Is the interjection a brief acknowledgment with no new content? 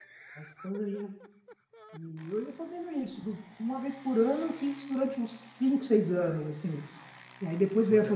Yes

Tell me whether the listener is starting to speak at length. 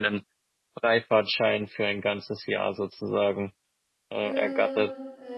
Yes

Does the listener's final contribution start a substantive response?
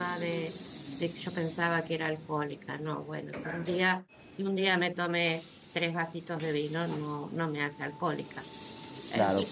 No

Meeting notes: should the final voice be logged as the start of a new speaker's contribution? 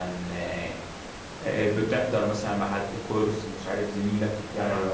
No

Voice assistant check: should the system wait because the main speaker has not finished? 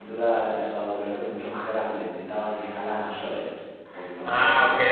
No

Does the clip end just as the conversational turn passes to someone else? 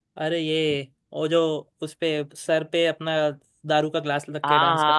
Yes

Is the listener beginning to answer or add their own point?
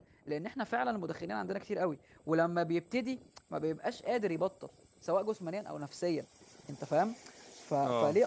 No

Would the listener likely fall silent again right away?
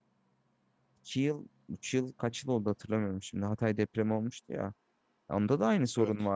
Yes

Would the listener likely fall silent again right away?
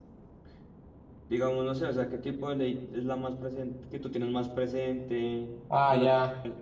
No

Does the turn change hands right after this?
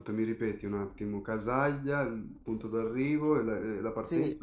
Yes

